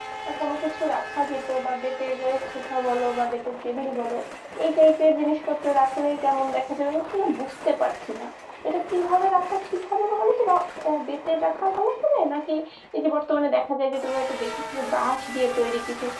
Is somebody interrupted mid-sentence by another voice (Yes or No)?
No